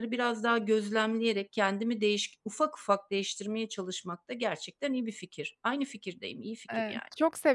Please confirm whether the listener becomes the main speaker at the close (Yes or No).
Yes